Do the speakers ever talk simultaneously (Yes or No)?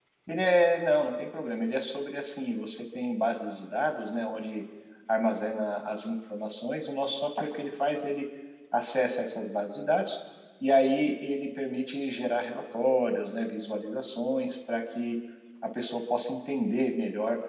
No